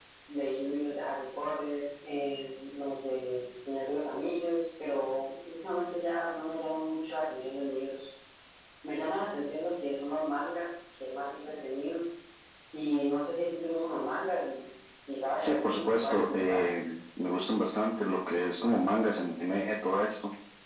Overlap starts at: 15 s

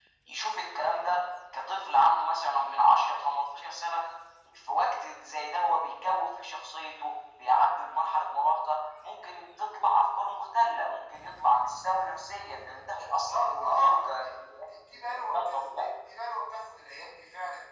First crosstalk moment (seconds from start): 13 s

